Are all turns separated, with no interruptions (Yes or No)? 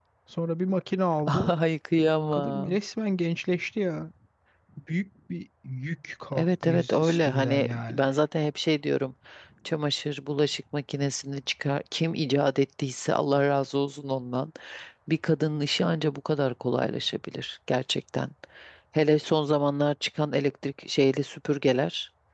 No